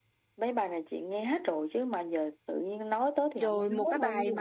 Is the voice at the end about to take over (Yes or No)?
Yes